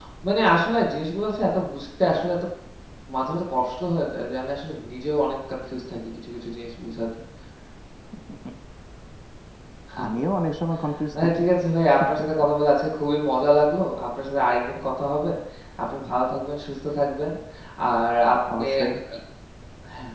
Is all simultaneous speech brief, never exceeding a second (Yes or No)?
Yes